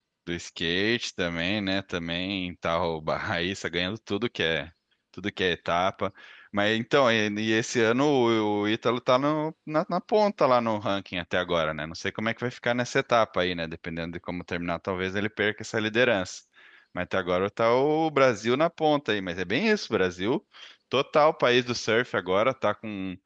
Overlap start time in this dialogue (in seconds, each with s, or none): none